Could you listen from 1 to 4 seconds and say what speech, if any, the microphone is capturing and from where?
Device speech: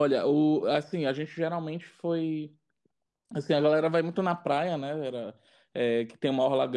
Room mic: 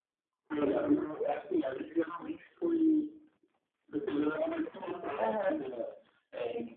echo only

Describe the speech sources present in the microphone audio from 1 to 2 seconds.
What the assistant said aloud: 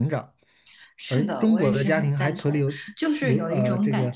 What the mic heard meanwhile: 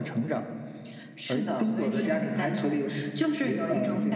echo only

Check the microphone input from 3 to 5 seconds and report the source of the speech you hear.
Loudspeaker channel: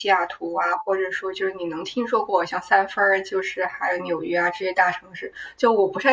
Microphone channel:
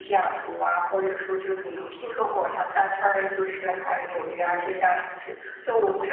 echo only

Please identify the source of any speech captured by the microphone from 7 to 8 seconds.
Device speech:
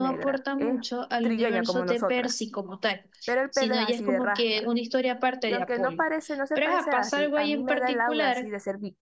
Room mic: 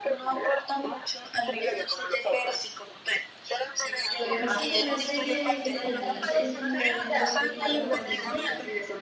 both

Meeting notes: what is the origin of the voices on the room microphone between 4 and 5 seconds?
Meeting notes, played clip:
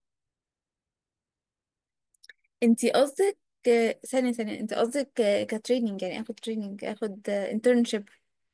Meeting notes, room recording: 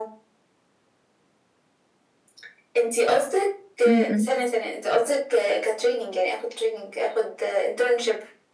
both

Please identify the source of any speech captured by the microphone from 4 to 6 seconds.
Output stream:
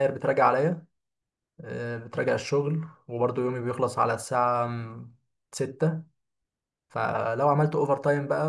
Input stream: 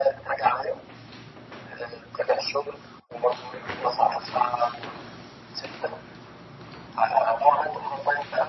echo only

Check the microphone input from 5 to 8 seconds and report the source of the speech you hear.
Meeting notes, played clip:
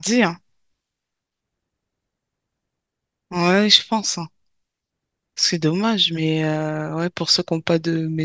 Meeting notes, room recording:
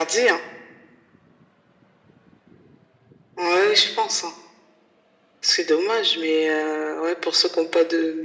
echo only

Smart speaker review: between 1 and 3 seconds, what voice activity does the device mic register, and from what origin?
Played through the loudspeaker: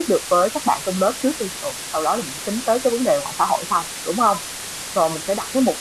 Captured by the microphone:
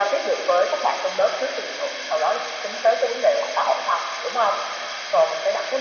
echo only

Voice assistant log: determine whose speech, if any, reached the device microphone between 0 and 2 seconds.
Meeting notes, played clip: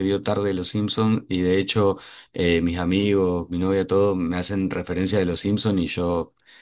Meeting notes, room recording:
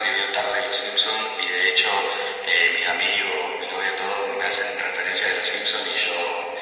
echo only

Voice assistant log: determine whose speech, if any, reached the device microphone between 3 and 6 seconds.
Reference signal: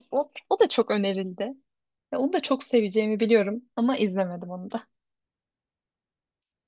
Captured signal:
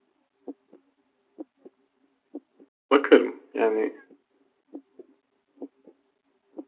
user only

